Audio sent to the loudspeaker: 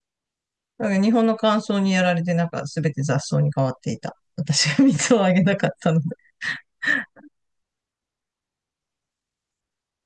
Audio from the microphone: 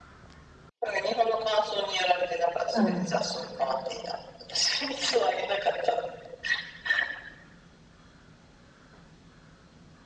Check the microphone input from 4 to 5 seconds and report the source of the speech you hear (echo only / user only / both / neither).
echo only